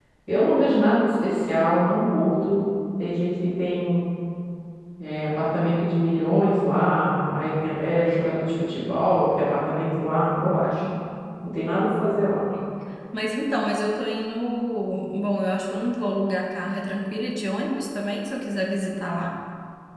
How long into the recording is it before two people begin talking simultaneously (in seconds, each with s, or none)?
none